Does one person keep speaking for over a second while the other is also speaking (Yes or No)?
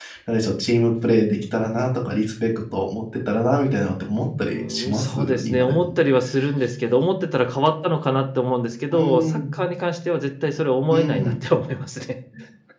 Yes